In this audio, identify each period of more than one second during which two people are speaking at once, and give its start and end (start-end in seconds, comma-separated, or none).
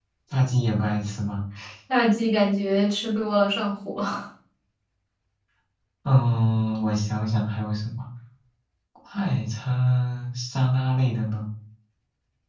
none